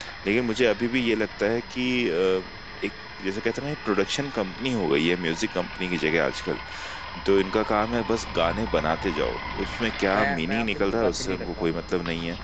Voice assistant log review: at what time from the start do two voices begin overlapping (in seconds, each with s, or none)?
10.1 s